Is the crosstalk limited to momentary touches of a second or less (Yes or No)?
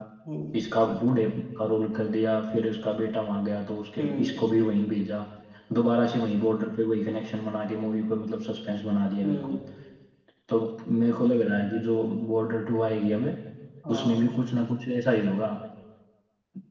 Yes